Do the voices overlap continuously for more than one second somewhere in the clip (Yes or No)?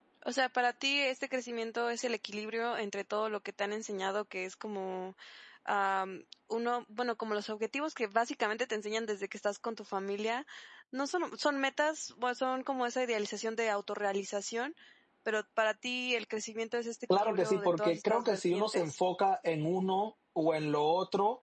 Yes